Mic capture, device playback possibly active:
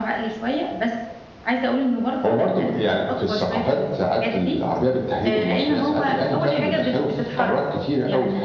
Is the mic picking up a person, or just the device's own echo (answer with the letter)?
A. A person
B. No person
B